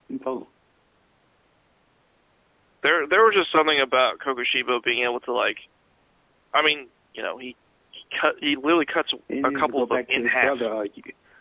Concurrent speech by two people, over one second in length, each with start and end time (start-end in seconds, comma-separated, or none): 9.4-10.7